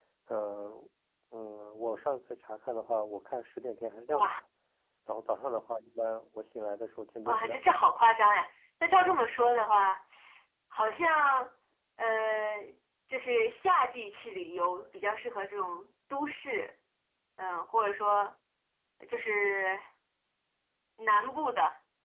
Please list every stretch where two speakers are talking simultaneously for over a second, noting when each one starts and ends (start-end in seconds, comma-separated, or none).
none